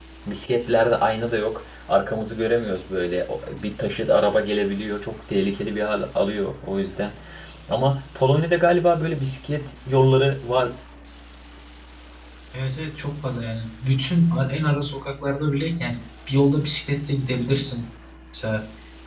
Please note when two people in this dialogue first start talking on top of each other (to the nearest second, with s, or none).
none